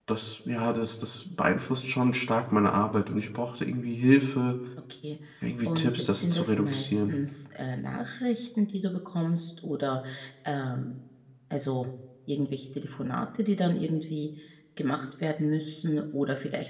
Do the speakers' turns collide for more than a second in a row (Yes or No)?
Yes